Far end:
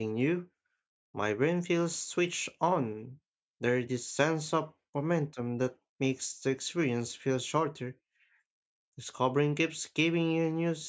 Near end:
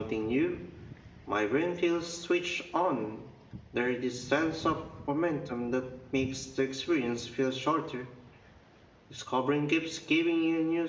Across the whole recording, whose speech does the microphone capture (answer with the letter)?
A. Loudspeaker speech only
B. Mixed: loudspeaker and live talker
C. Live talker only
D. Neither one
A